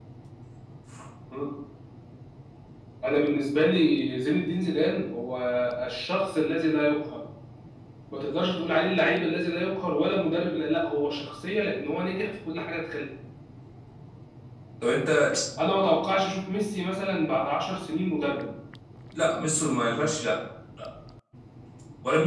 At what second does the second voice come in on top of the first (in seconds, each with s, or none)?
none